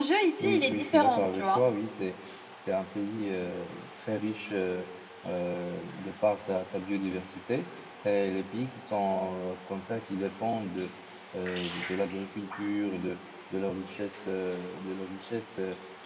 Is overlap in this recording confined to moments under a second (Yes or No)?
No